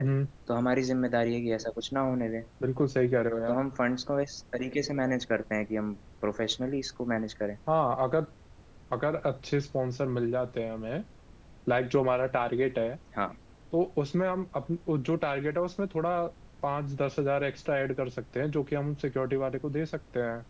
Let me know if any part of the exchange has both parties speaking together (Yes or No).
No